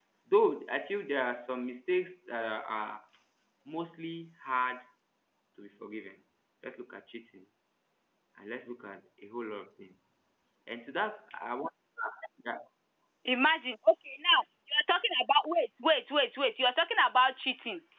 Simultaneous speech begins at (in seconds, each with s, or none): none